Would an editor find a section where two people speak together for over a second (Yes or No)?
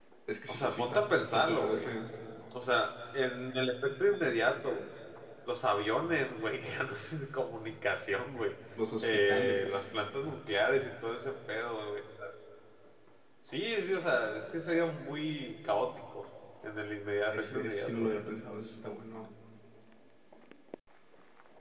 Yes